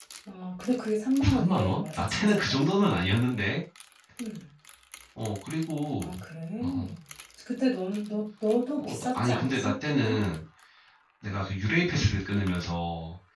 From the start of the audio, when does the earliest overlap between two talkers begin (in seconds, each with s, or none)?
1.2 s